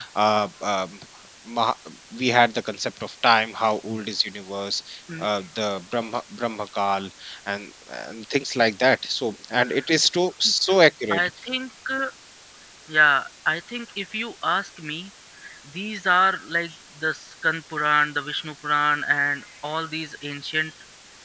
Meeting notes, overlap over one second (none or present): none